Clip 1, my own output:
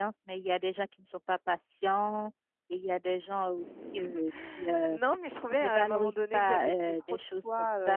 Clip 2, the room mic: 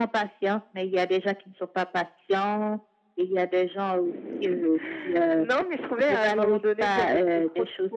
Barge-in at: none

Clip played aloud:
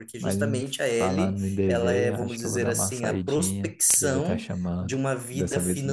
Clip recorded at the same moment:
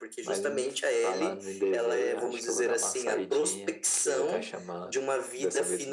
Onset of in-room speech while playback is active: none

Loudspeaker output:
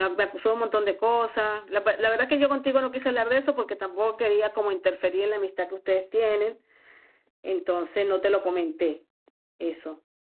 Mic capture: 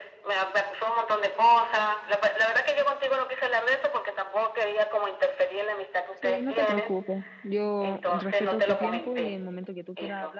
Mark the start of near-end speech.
6.1 s

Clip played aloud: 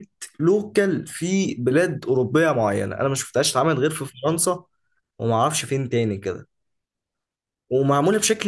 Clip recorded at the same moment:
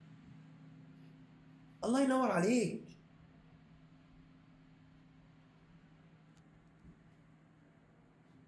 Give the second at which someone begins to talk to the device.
1.8 s

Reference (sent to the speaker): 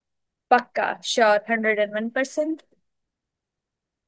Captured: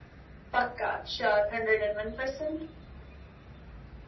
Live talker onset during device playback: none

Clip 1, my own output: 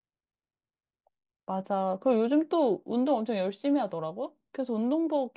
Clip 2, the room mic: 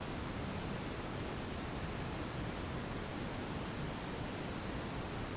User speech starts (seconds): none

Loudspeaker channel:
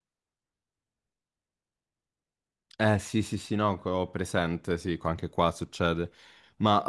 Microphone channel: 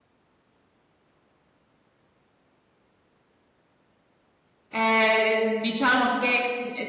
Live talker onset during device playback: 4.7 s

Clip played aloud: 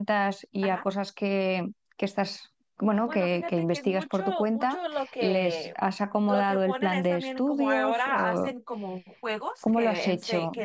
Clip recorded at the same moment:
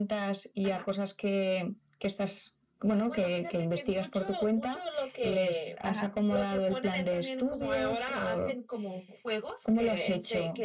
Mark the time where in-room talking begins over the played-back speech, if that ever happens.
5.8 s

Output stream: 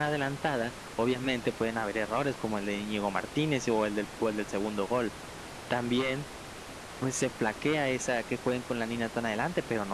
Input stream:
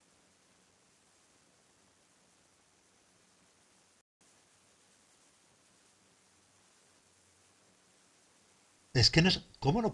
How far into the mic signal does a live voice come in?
8.9 s

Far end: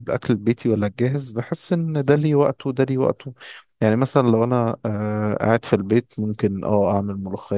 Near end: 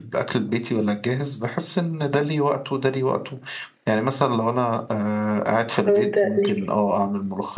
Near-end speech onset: 5.8 s

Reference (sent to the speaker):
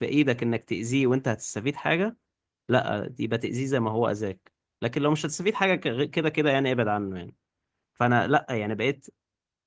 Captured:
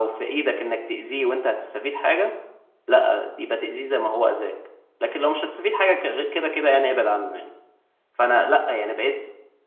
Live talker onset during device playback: none

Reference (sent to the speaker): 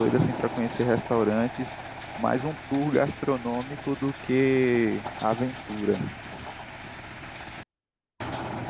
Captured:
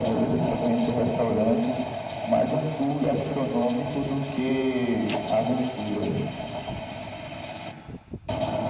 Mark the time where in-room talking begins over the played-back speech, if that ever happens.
none

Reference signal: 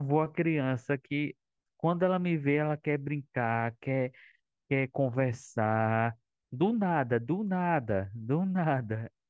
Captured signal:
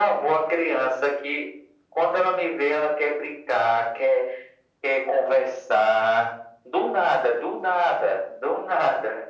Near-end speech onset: none

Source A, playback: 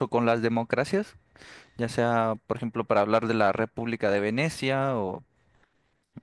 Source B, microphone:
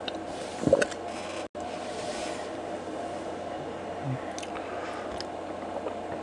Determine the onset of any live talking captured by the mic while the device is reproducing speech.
none

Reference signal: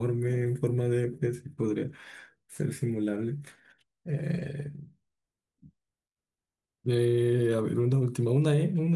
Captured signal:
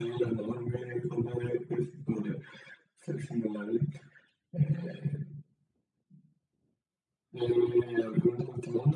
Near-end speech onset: none

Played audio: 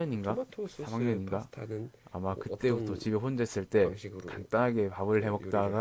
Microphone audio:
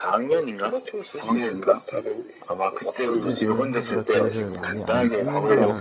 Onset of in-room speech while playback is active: 3.1 s

